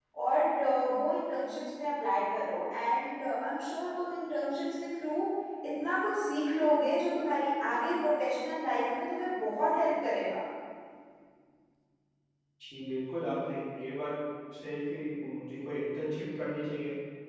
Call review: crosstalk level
none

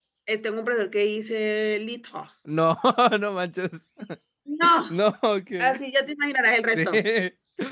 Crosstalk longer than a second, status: none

